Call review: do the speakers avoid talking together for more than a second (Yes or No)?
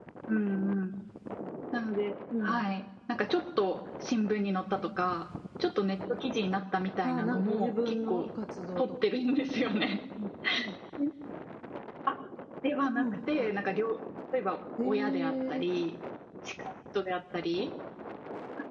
No